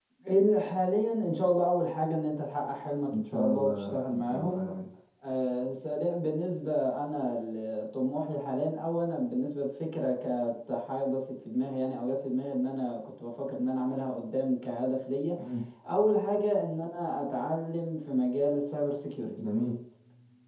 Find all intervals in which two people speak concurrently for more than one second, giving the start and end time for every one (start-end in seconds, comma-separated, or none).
3.1-4.7